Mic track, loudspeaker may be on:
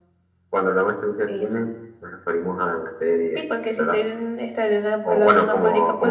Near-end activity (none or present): none